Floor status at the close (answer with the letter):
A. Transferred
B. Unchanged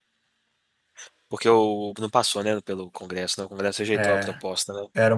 A